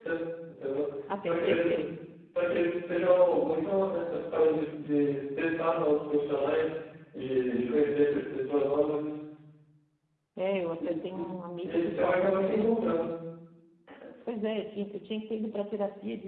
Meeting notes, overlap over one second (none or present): present